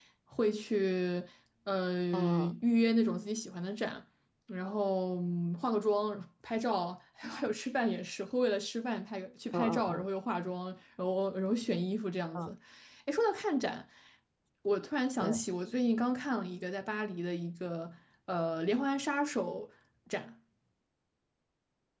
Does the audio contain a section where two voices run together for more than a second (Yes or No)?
No